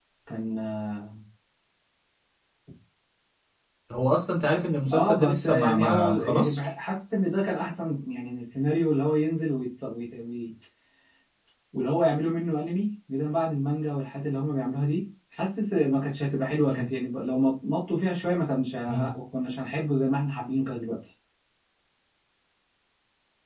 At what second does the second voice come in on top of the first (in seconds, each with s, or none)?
4.9 s